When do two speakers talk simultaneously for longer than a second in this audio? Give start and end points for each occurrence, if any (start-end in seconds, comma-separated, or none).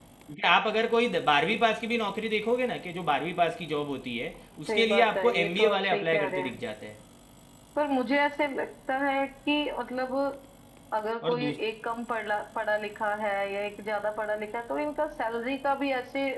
4.7-6.6